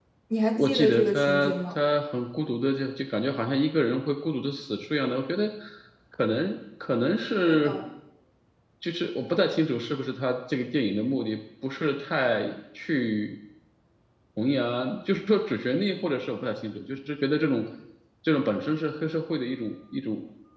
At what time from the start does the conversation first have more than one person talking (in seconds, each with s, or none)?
0.6 s